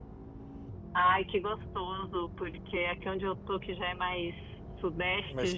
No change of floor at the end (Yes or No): Yes